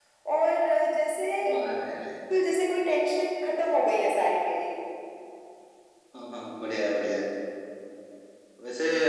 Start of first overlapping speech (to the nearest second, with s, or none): none